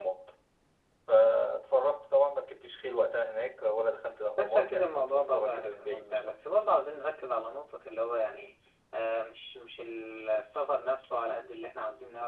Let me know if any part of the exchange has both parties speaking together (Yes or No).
Yes